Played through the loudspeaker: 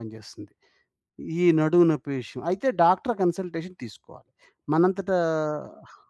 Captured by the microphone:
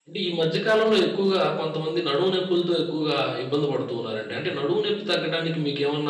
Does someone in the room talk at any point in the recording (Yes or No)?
Yes